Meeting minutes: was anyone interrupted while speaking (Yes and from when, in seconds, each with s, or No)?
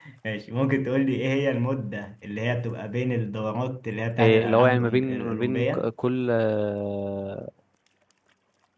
Yes, from 4.2 s